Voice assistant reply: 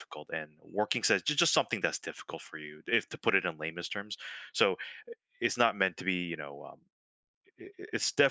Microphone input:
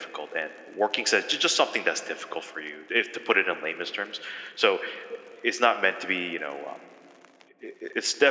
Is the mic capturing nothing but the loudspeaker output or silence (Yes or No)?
Yes